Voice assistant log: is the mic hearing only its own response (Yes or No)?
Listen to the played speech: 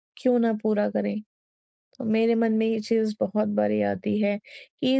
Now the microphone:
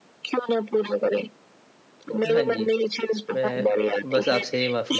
No